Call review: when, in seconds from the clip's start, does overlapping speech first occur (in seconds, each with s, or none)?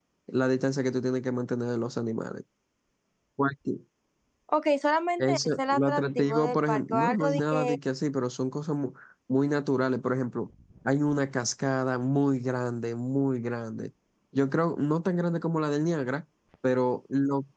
5.2 s